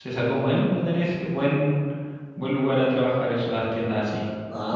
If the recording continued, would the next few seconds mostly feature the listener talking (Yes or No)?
Yes